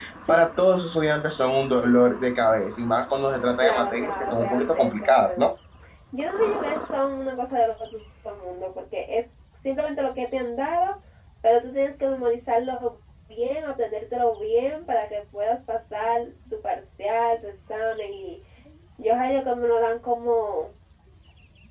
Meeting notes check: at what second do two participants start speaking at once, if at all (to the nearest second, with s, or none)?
4 s